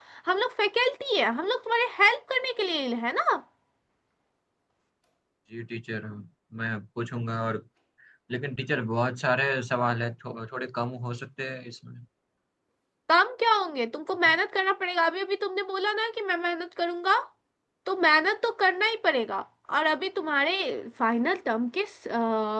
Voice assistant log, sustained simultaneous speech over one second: none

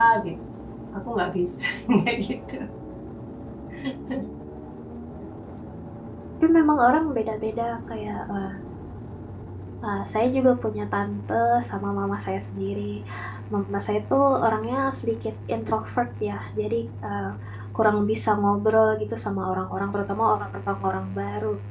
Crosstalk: none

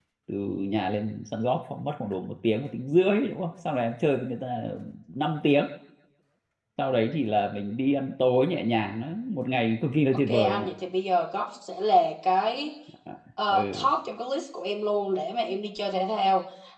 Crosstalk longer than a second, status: none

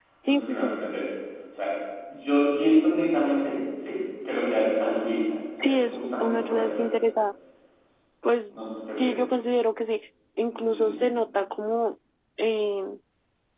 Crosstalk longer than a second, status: present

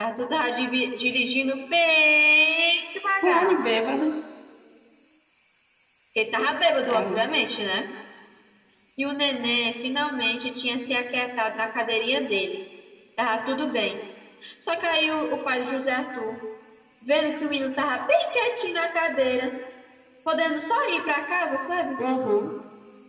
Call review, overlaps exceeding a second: none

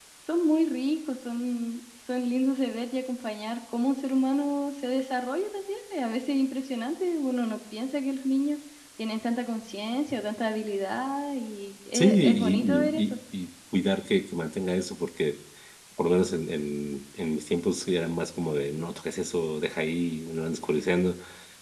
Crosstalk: present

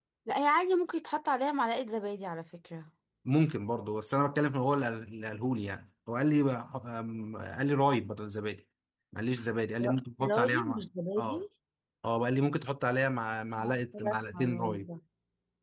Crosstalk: present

